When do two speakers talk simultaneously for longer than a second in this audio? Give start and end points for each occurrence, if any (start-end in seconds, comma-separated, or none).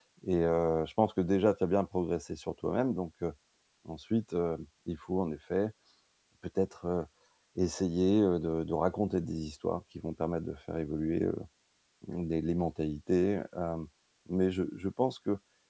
none